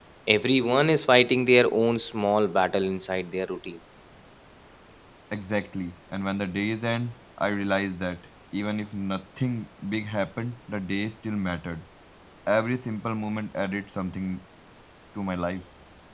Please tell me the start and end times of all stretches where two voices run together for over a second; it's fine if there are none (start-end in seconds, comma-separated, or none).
none